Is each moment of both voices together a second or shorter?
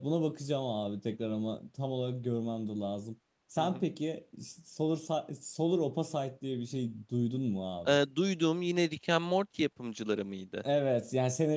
Yes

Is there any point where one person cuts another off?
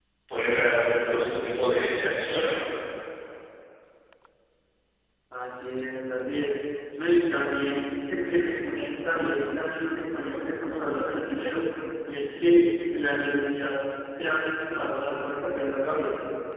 No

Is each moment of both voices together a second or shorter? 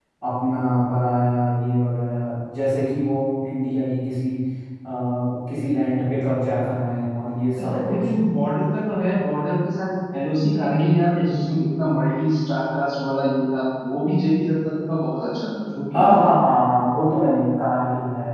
Yes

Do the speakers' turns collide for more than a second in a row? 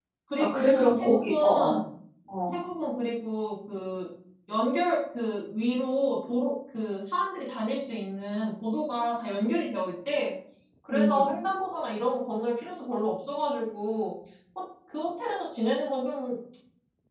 Yes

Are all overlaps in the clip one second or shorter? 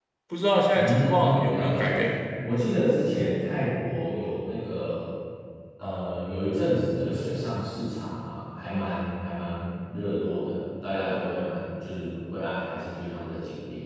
No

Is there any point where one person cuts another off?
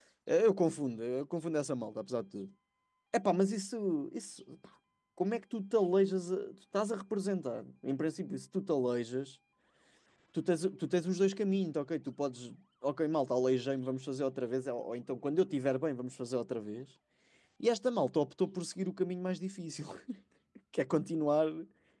No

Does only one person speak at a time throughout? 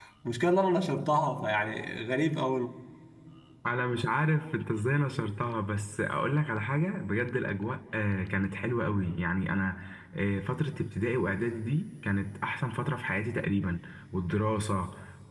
Yes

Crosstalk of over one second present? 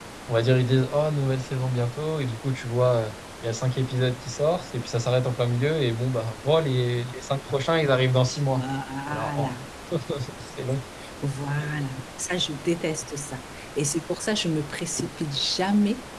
No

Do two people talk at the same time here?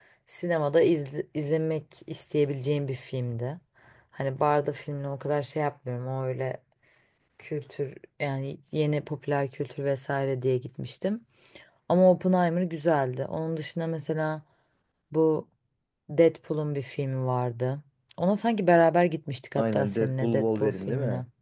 Yes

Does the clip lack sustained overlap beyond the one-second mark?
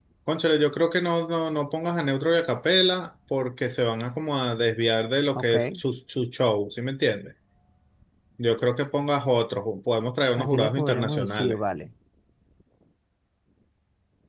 No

